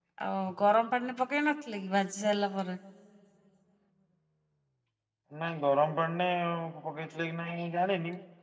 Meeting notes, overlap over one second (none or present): none